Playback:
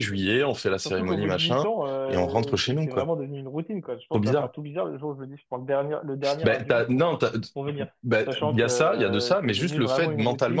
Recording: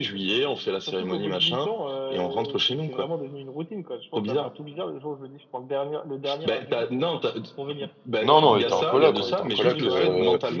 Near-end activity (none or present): present